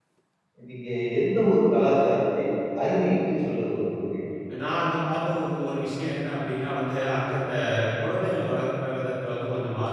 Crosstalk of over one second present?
No

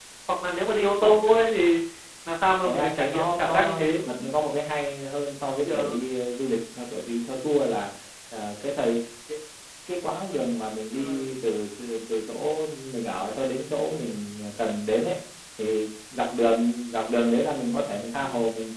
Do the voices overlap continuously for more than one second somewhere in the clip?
Yes, from 2.6 s

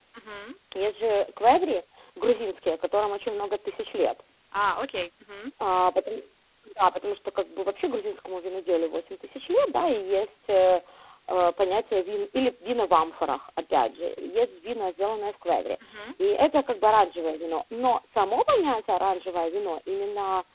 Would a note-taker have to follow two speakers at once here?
No

